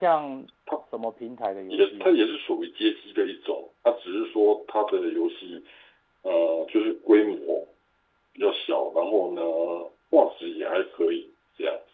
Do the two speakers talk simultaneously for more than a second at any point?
No

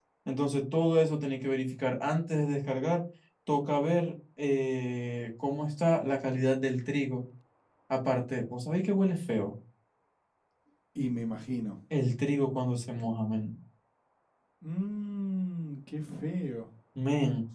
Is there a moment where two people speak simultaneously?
No

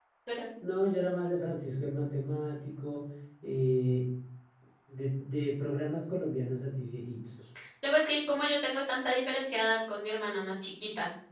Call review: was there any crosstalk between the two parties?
No

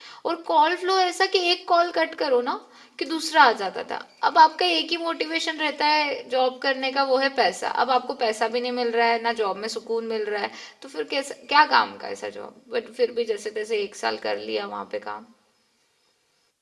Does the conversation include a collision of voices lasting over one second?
No

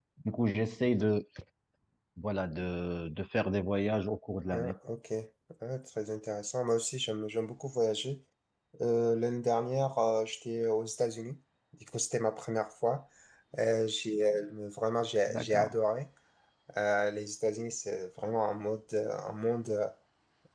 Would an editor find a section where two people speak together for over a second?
No

